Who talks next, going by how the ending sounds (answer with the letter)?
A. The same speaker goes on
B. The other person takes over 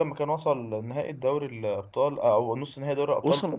B